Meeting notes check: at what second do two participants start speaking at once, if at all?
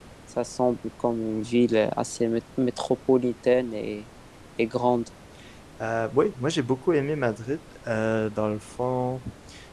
none

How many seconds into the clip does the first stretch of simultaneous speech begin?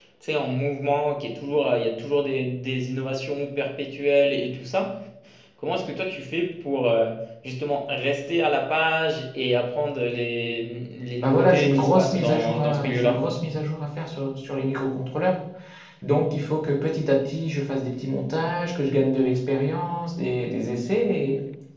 11.2 s

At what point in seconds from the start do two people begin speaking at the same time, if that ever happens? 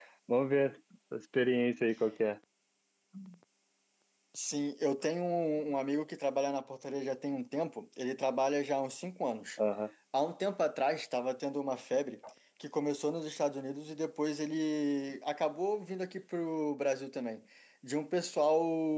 none

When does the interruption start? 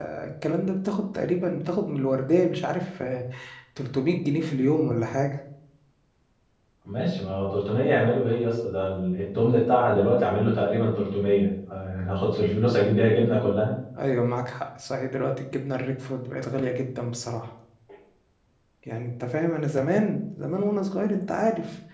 none

